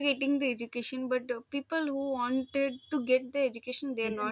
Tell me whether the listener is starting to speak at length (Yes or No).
Yes